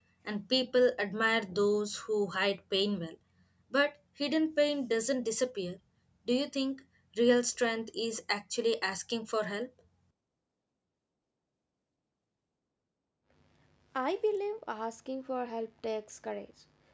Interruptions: none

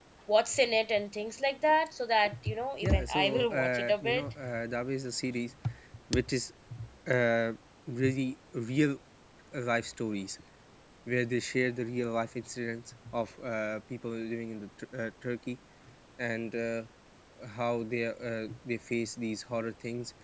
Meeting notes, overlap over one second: present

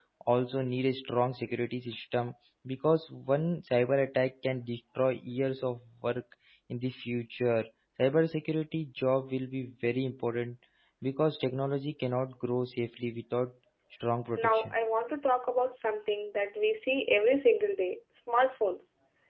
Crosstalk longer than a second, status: none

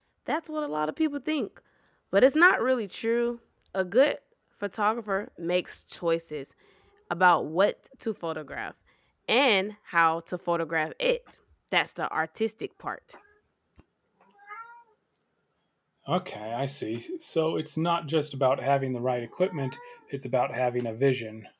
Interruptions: none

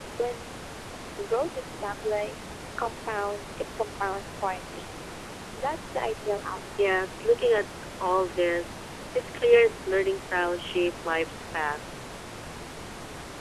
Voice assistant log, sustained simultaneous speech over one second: none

